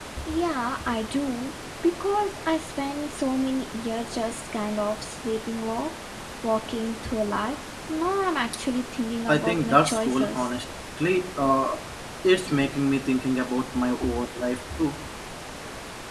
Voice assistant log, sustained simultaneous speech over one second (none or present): present